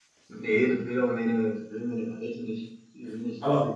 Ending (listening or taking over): listening